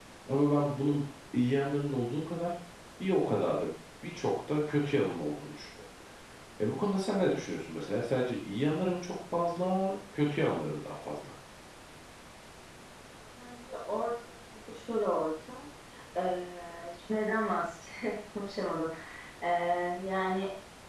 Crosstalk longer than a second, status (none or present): none